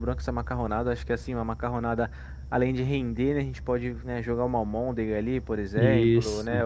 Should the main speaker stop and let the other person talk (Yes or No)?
No